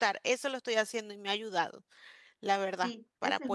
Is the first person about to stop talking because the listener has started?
Yes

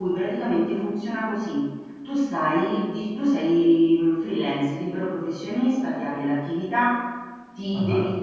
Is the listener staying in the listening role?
Yes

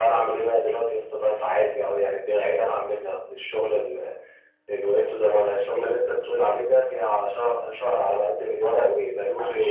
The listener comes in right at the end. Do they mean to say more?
Yes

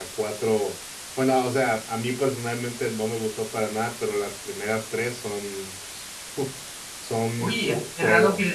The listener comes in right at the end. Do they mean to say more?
Yes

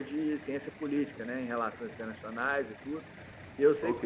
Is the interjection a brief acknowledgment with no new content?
Yes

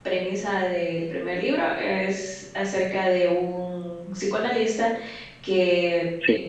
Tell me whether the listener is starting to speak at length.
No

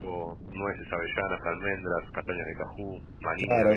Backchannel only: No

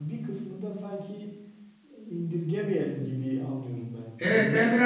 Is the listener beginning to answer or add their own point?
Yes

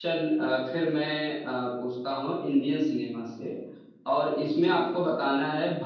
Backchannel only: Yes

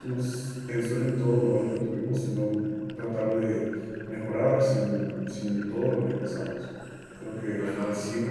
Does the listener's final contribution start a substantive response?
No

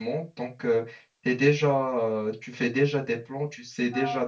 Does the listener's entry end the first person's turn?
No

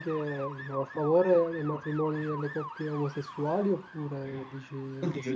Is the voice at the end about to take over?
Yes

